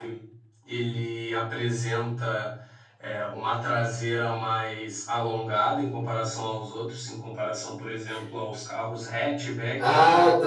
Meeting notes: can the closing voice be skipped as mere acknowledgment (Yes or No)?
No